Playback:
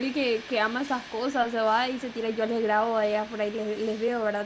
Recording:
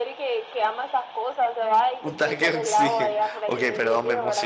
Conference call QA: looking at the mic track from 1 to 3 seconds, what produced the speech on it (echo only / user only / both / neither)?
both